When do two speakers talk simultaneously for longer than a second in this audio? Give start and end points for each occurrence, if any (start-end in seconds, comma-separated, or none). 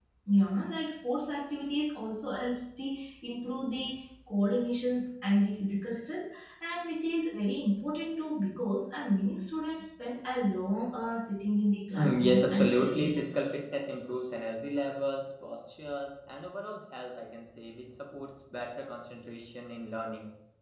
12.0-13.2